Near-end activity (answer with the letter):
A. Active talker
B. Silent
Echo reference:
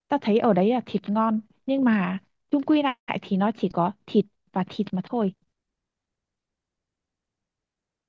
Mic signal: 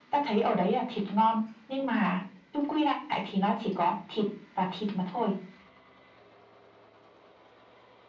B